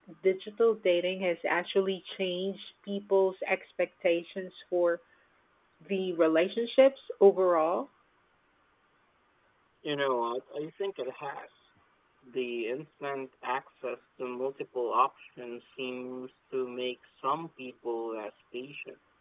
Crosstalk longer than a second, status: none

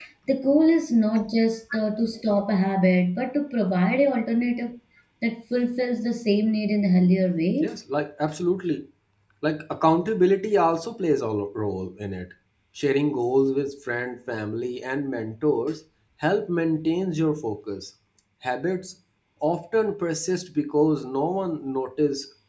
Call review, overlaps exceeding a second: none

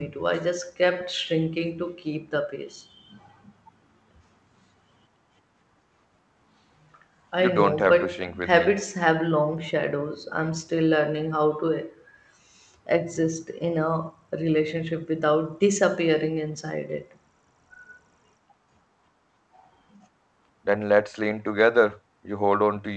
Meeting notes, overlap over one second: present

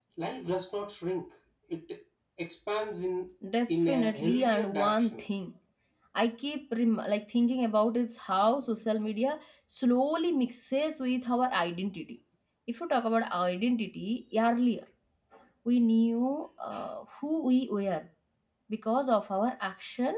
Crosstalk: present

